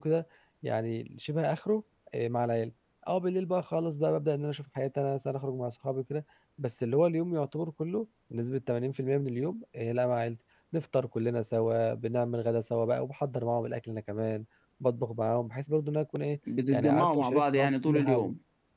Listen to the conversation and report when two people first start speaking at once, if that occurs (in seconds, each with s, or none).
16.5 s